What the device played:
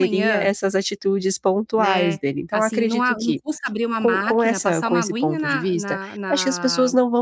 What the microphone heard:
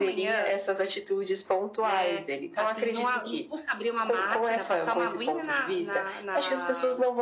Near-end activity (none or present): none